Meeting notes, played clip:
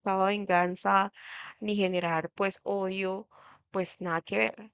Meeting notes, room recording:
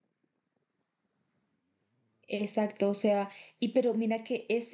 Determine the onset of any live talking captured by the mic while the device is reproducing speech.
2.3 s

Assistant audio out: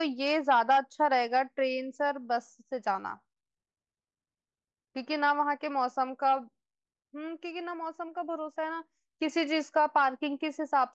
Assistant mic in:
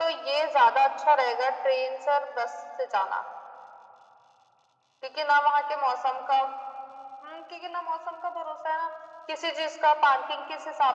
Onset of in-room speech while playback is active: none

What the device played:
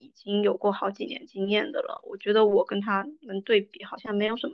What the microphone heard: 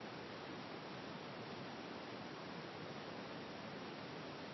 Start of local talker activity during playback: none

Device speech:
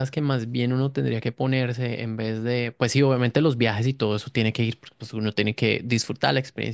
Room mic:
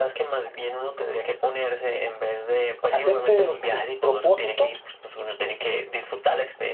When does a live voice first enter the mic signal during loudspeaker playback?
2.9 s

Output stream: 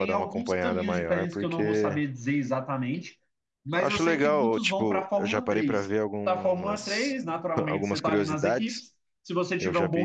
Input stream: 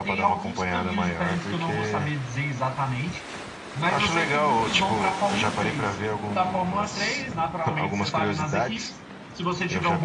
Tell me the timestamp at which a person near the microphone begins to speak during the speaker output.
none

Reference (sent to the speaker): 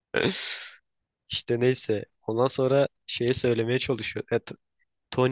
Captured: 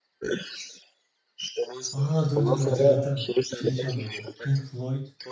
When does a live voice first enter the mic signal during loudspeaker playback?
1.9 s

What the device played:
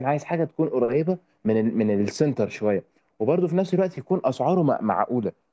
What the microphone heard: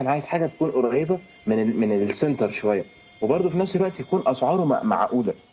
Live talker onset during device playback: none

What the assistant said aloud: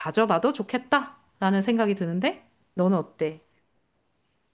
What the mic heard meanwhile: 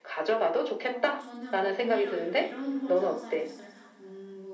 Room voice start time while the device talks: 0.8 s

